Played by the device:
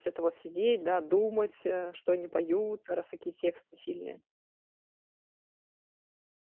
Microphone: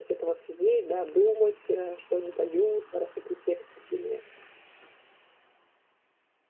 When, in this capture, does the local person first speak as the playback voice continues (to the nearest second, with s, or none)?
none